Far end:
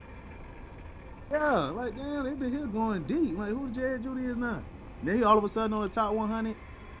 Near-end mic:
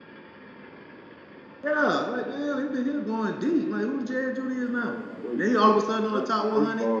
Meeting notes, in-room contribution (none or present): present